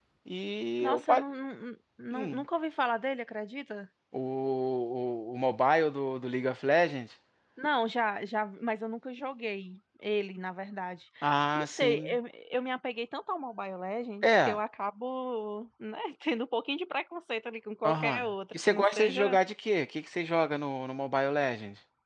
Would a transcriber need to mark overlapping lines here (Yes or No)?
Yes